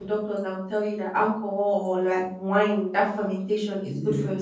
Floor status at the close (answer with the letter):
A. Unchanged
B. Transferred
A